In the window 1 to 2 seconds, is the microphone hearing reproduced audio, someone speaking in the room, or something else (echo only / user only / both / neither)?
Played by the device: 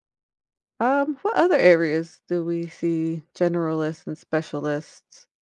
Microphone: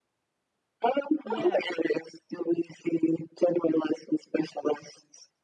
both